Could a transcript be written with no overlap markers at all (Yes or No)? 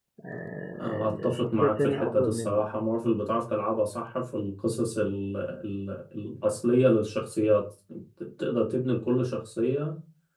No